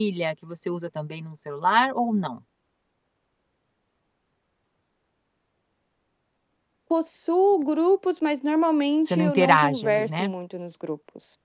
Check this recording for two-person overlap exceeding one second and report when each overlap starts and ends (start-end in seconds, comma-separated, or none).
9.1-10.3